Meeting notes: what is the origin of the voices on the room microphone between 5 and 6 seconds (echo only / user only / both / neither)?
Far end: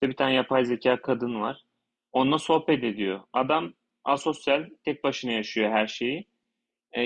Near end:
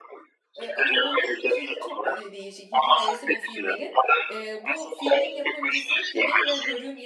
both